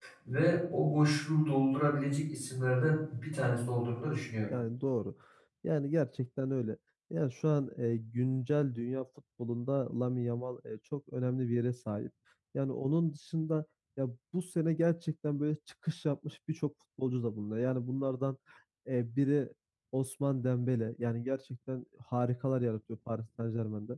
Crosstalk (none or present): none